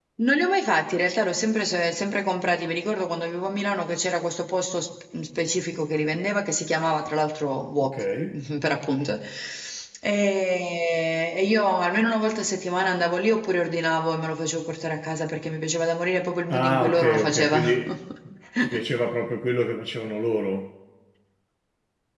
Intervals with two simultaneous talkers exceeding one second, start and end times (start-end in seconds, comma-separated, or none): 16.5-17.8